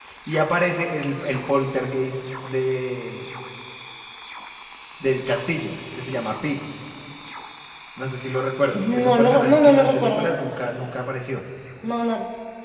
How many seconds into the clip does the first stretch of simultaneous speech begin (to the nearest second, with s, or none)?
9 s